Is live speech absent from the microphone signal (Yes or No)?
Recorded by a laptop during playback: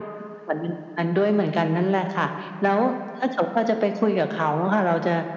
Yes